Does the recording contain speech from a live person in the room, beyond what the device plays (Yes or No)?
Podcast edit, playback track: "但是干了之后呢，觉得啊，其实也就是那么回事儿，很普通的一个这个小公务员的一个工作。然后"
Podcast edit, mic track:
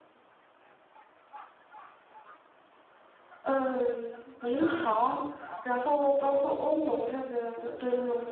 Yes